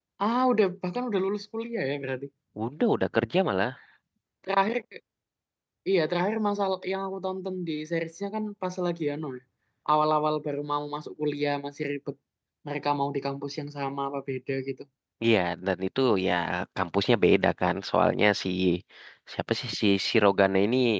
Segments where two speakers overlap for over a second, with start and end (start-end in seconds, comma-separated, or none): none